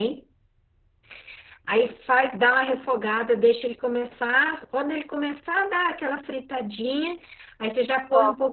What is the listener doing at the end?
listening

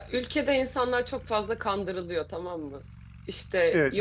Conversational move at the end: listening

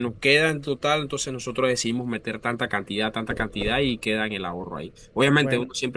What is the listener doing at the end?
listening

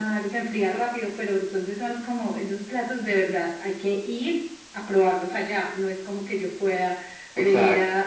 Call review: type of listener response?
listening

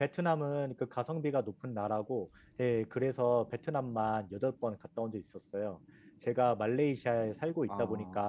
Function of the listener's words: listening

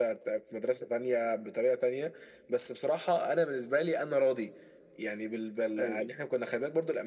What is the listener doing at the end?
listening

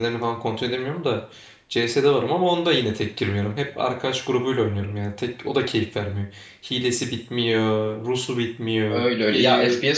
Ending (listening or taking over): taking over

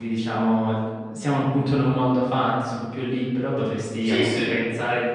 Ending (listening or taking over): listening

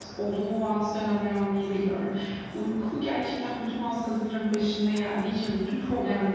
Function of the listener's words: listening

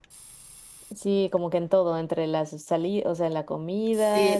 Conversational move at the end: taking over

